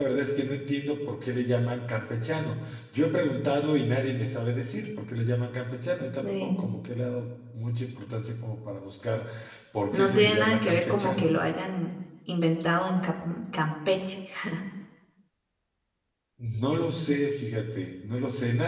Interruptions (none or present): present